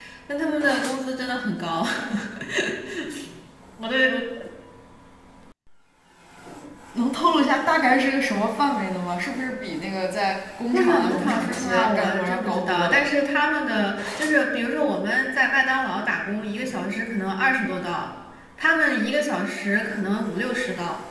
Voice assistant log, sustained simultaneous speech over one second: present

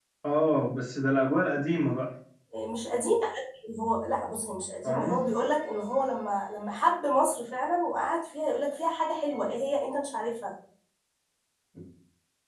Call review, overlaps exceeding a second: none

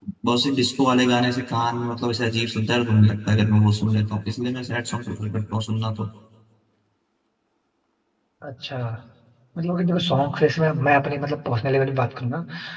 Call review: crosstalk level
none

